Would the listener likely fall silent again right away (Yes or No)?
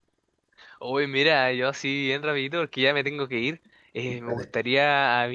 Yes